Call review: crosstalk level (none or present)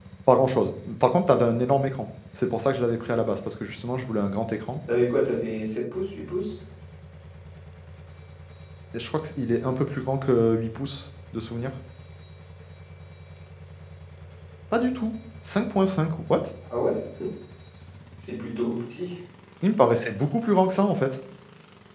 none